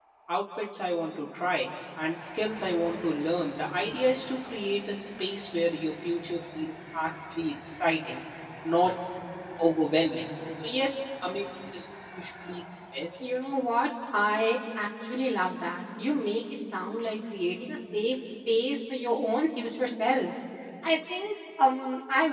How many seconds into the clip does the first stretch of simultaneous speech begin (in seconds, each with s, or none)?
none